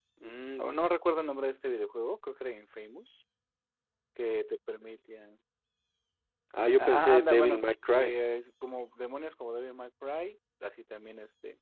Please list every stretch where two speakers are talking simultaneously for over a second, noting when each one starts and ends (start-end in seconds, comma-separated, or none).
6.8-8.1